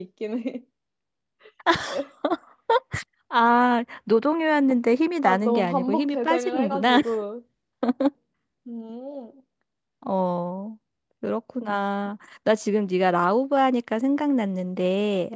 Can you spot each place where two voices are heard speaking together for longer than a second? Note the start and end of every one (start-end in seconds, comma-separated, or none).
5.2-7.0